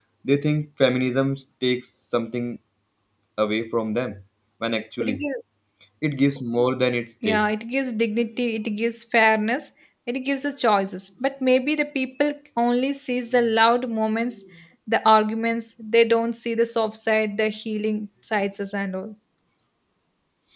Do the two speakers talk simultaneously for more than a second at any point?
No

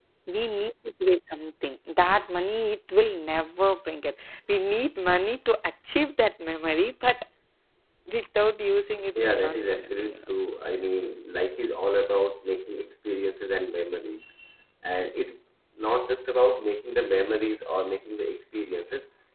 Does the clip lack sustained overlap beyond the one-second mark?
No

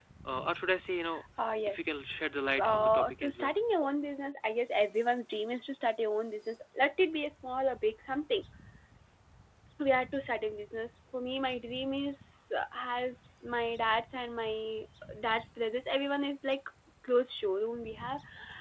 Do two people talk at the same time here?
Yes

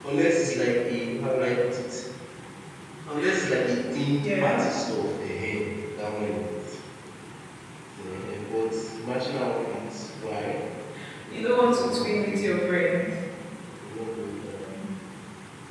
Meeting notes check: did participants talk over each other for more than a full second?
Yes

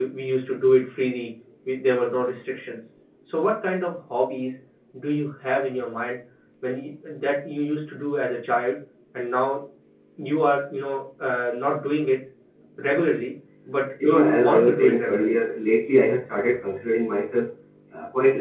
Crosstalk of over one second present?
Yes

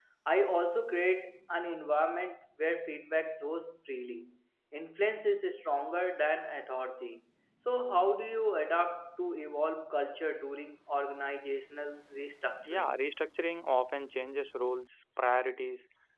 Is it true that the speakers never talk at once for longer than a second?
Yes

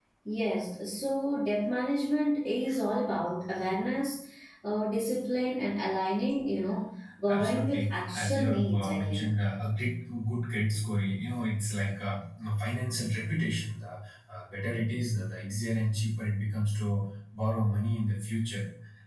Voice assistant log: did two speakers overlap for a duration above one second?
Yes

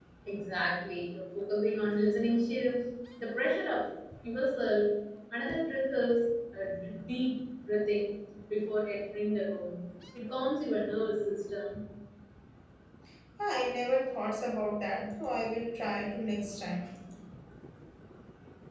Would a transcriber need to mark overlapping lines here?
No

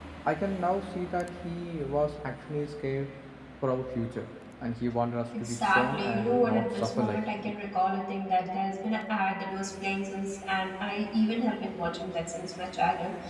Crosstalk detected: Yes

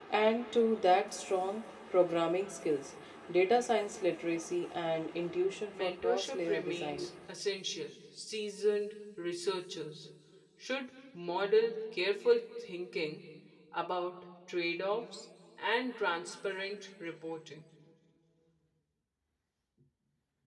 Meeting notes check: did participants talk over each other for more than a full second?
Yes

